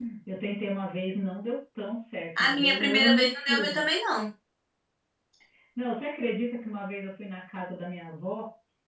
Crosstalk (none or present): present